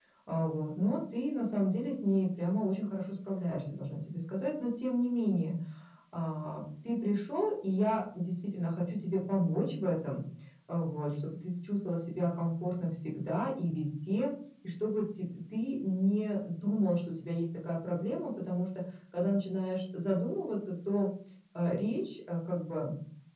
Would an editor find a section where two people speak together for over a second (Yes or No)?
No